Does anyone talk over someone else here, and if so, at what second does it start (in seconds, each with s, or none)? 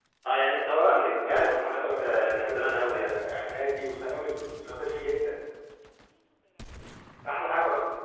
0.7 s